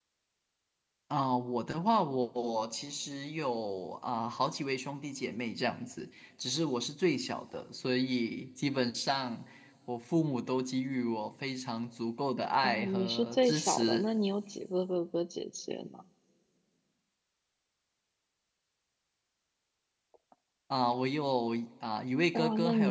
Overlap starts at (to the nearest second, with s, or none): 13 s